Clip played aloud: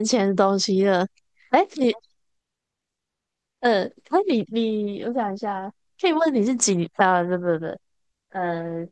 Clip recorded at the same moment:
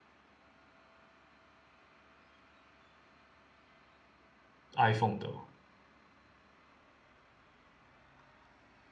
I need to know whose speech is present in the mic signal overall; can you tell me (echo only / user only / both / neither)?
user only